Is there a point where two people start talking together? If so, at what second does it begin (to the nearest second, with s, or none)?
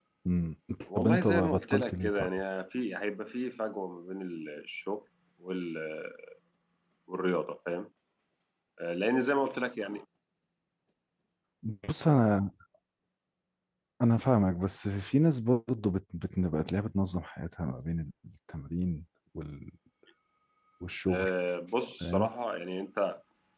1 s